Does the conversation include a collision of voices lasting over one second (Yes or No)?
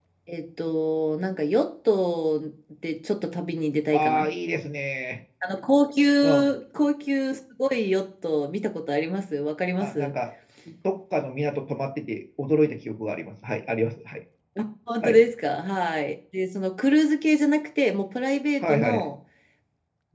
No